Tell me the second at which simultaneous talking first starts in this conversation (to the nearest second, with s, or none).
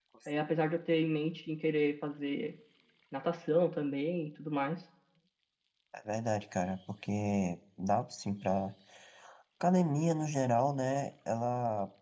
none